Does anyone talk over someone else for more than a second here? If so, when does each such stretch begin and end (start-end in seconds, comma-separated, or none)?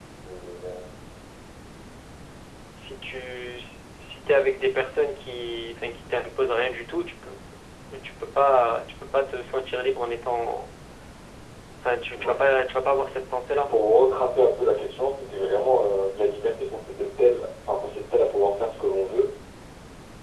none